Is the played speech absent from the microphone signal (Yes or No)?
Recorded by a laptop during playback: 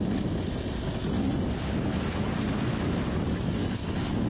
Yes